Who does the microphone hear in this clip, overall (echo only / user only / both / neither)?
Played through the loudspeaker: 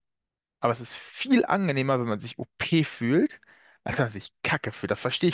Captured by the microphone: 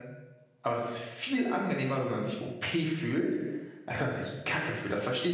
echo only